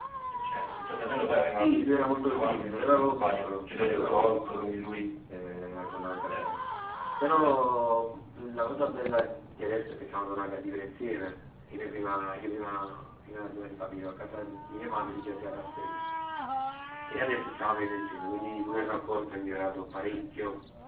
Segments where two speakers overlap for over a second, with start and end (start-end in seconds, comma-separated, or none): 2.0-4.7